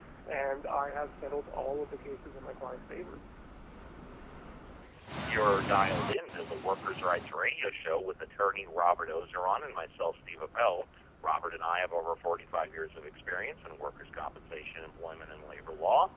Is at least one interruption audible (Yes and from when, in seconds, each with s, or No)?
No